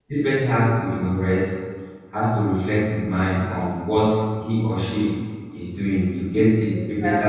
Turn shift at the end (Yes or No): No